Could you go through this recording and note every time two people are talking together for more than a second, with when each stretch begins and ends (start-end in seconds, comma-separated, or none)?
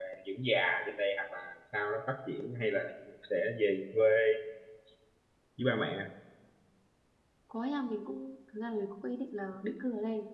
none